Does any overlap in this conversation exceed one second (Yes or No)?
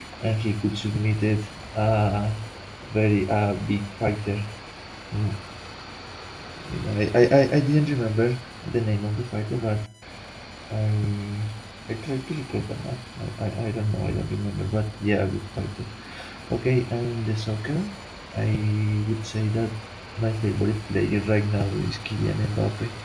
No